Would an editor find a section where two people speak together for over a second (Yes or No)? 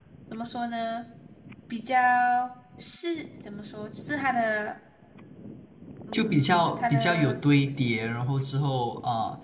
Yes